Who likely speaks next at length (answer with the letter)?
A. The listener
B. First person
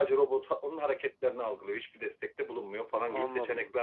A